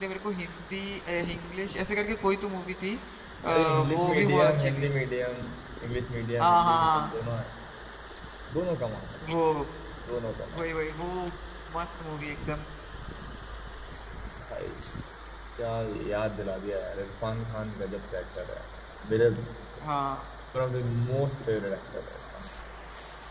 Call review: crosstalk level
present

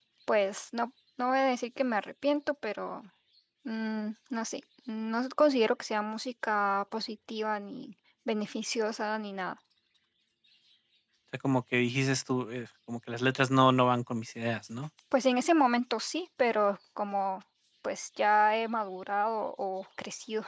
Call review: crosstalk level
none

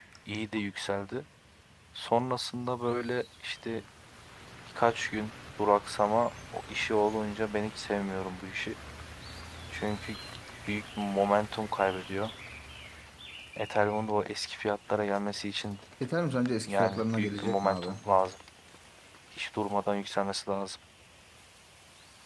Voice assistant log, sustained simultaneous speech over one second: present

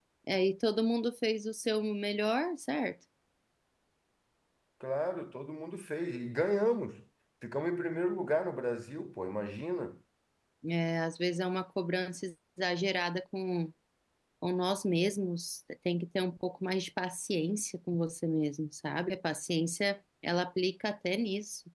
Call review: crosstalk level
none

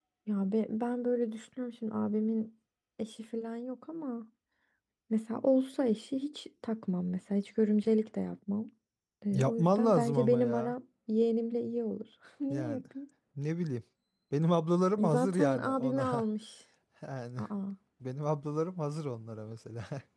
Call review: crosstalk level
present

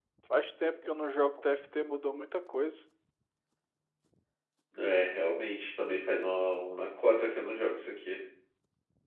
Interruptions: none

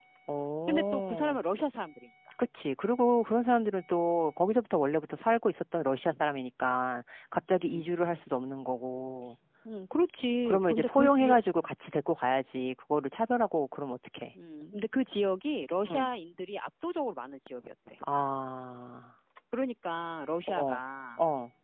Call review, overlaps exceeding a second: present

